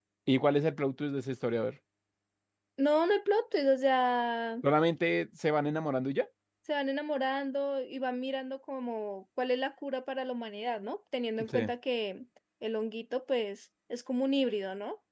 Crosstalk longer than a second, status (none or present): none